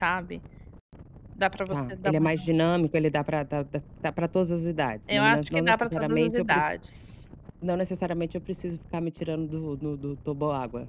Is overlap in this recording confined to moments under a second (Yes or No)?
No